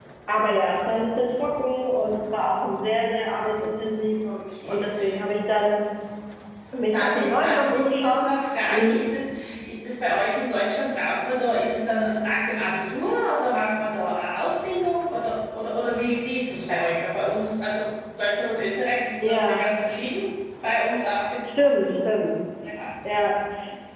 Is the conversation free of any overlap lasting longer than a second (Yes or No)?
No